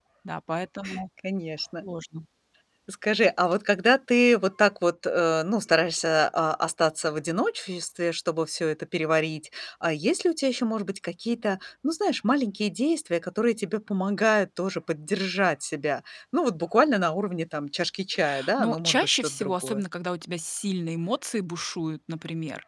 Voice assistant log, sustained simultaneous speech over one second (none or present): present